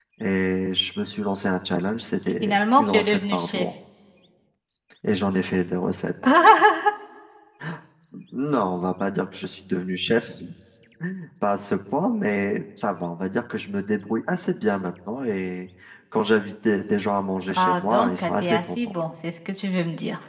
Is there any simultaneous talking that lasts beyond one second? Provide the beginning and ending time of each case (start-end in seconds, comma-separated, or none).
2.4-3.7, 17.5-18.8